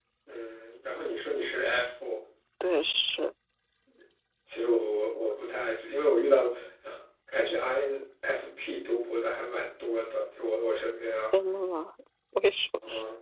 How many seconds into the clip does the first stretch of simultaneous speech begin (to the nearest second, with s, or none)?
none